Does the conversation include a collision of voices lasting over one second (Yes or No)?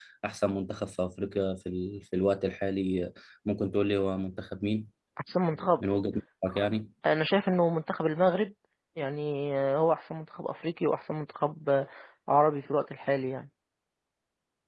No